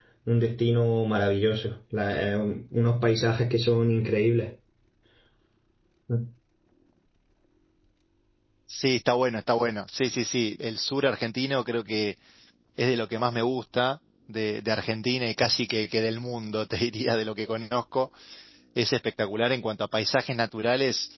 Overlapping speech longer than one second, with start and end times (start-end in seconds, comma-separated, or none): none